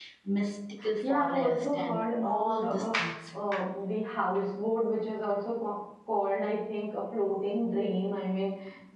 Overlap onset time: 1.0 s

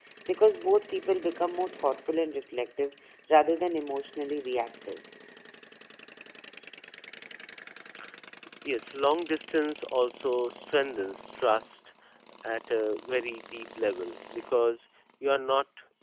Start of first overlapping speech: none

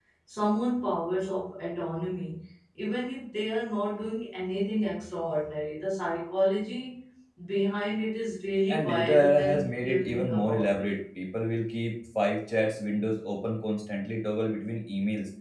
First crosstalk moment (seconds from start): 8.7 s

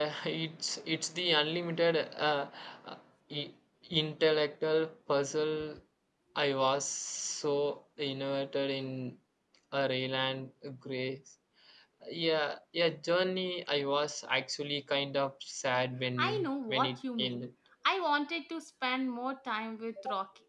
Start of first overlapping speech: 16.2 s

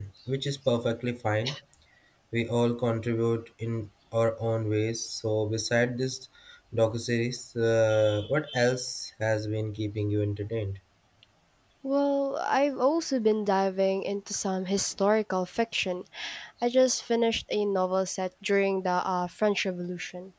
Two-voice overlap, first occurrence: none

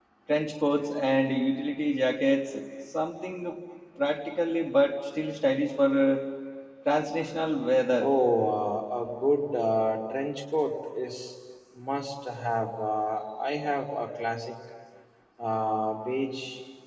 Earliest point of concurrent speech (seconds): none

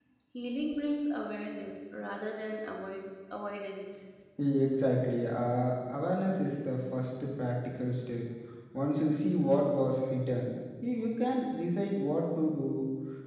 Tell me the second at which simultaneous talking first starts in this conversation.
none

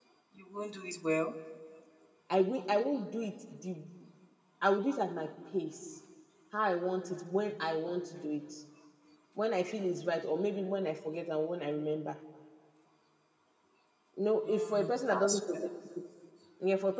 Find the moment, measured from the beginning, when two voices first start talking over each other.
14.5 s

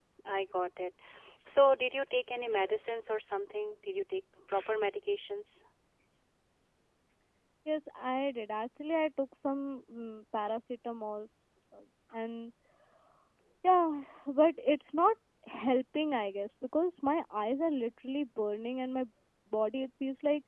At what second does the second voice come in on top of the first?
none

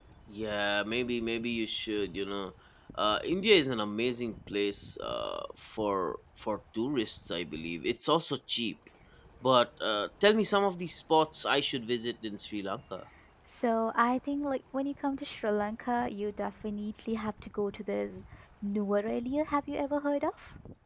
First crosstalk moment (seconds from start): none

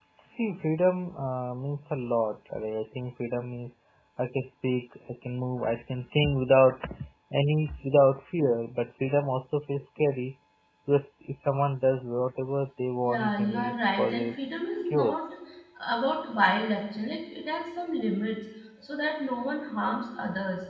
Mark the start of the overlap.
13.0 s

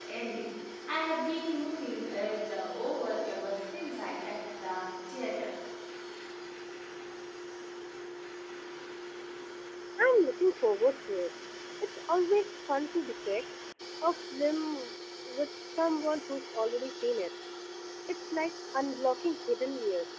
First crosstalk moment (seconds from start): none

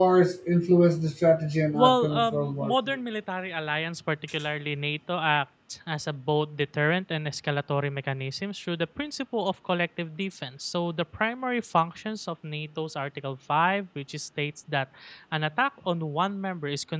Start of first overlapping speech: 1.7 s

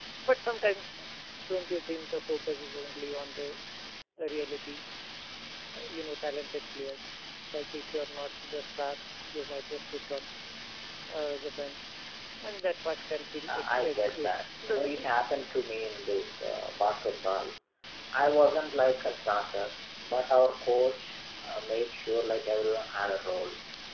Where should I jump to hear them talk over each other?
13.5 s

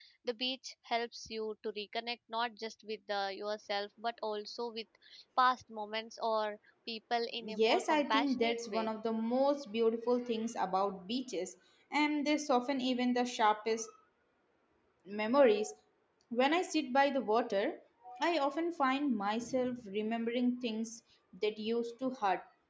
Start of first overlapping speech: 7.4 s

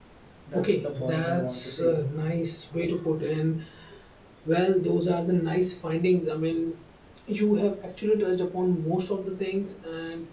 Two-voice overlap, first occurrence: 0.5 s

